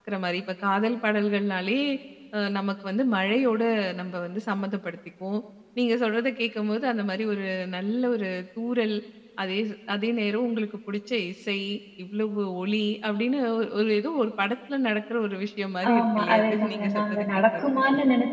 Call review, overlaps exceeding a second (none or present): present